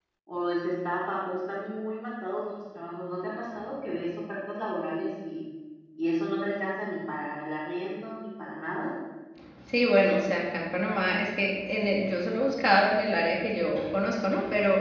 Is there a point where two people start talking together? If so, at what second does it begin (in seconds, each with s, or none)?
none